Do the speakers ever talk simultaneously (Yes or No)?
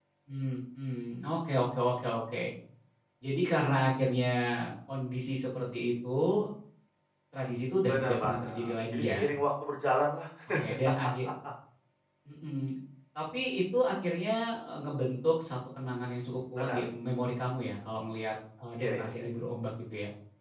Yes